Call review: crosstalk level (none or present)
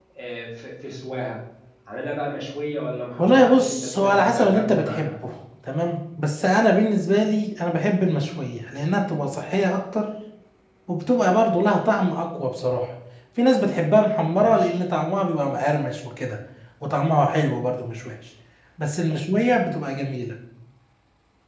present